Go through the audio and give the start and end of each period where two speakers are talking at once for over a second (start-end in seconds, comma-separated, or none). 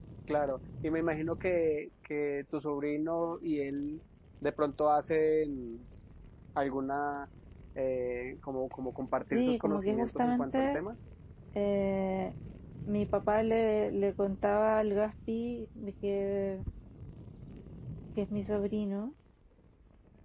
9.3-10.8